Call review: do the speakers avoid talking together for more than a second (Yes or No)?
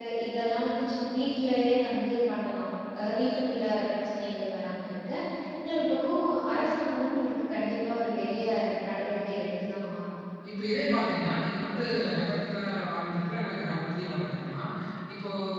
Yes